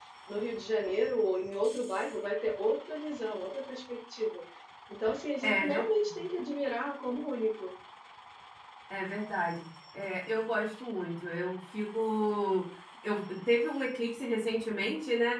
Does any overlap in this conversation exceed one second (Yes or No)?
No